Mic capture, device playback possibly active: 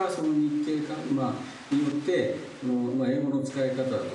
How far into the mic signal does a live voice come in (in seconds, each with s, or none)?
none